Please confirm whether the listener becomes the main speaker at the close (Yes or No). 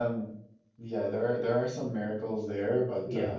No